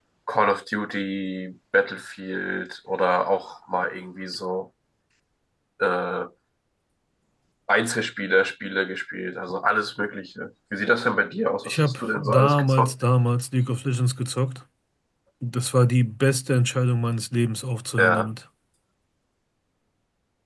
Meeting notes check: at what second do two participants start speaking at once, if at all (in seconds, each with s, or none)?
11.7 s